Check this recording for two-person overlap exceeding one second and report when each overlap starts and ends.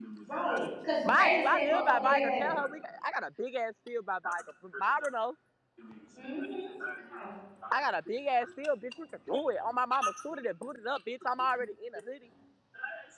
1.1-2.5

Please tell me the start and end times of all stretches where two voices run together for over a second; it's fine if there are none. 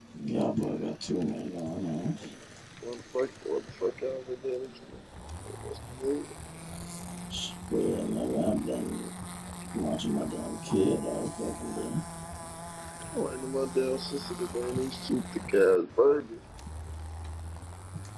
none

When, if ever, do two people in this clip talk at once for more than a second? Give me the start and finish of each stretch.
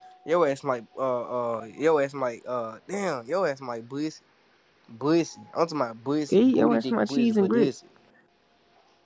6.3-7.7

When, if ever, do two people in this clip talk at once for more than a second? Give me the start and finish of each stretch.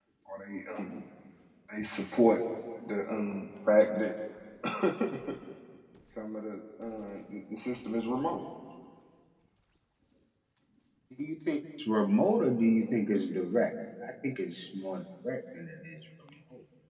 none

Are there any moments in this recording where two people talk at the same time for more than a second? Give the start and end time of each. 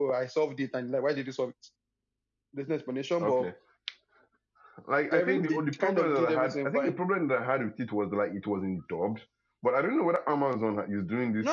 5.1-7.0

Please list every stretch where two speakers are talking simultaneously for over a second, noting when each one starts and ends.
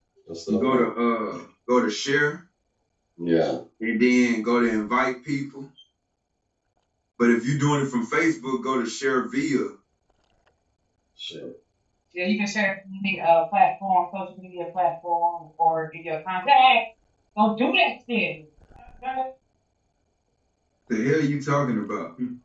none

